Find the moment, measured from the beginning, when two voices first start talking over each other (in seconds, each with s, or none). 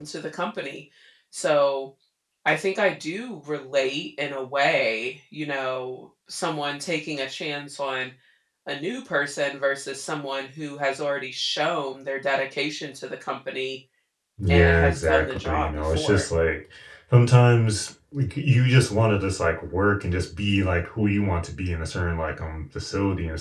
14.5 s